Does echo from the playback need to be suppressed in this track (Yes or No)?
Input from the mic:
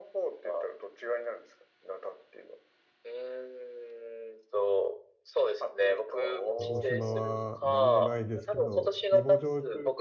Yes